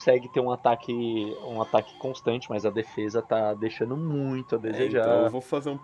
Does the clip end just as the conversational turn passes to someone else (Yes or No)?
Yes